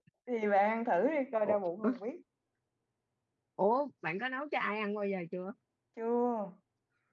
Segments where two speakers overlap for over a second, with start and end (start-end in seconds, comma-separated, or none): none